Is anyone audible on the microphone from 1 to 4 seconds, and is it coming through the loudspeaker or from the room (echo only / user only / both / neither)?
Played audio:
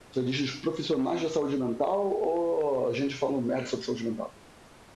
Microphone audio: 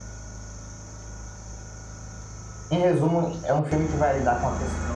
user only